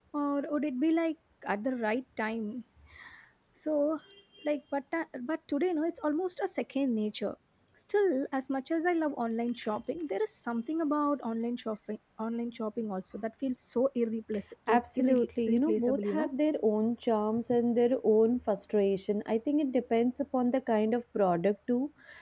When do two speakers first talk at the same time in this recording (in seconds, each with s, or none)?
14.7 s